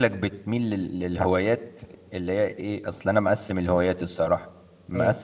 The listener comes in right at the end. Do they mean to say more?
No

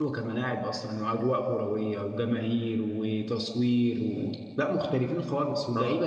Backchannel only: No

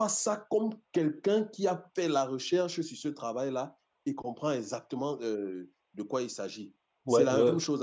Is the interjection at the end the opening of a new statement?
Yes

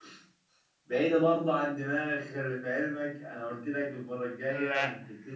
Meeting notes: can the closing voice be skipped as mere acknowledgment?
Yes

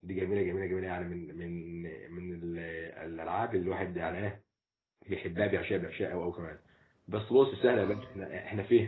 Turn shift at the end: No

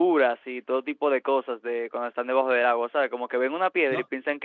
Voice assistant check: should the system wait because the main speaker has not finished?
No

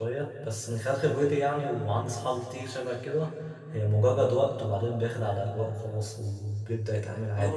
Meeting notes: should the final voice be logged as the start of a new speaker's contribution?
Yes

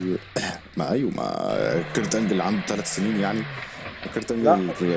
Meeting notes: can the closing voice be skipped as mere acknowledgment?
Yes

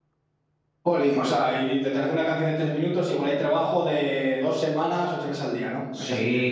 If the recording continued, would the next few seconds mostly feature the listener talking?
Yes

